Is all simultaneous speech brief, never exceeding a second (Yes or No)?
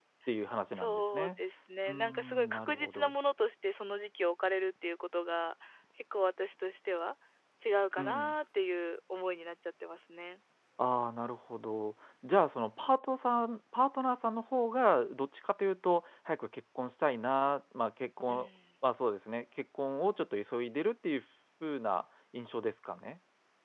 No